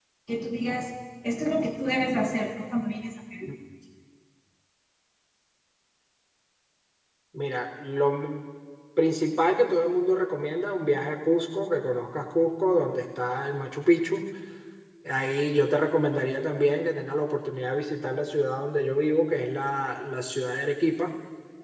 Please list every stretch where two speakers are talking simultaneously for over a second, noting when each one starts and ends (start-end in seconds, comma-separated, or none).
none